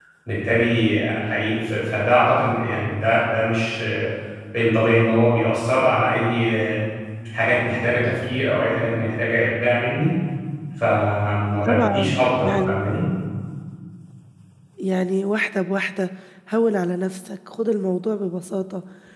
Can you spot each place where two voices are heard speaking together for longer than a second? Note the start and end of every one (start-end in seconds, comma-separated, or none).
11.7-12.9